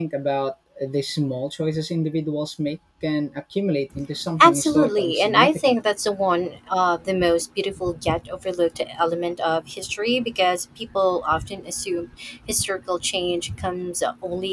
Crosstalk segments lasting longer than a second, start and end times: 4.4-5.7

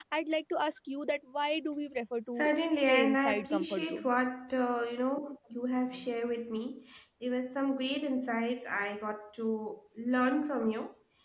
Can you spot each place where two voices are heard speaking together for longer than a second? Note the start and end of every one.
2.8-4.2

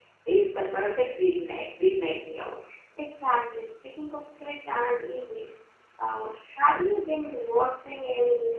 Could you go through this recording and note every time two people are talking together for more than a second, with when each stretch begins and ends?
none

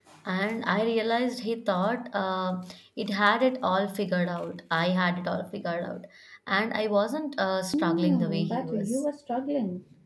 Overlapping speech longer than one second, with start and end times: 7.8-9.0

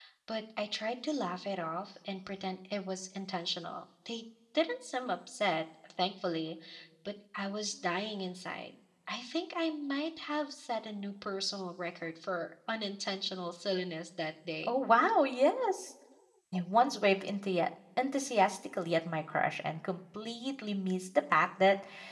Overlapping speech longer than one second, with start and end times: none

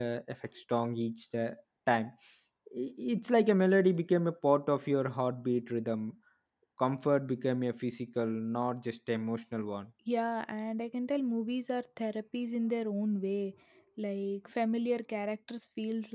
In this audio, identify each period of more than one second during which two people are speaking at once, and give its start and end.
none

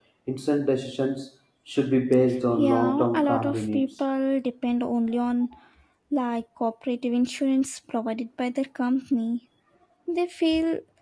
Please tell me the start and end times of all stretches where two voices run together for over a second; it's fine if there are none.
2.6-3.9

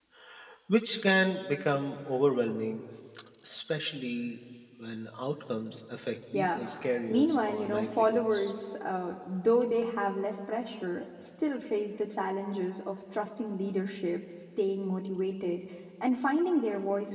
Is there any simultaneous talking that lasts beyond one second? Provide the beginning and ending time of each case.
7.1-8.5

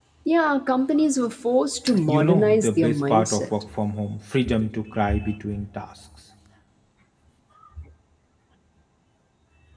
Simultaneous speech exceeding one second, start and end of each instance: 2.1-3.4

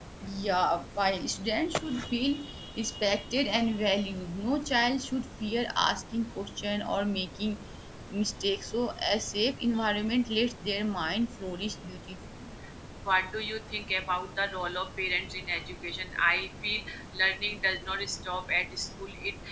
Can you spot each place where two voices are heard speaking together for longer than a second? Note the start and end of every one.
none

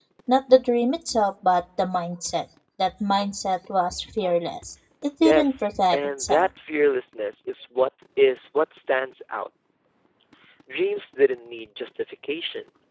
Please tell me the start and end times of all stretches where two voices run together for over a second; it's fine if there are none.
5.2-6.5

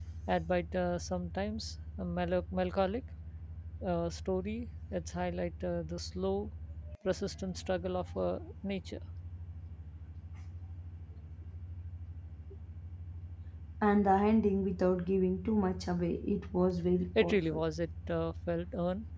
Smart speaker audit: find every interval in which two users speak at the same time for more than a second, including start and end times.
none

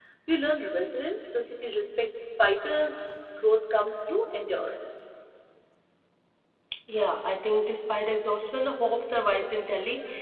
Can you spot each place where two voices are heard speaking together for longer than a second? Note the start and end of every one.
none

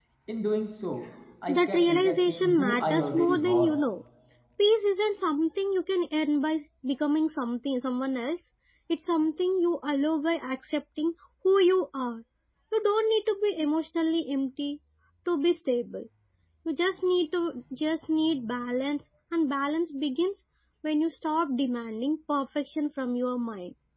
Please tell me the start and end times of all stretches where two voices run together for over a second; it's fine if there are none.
1.5-3.8

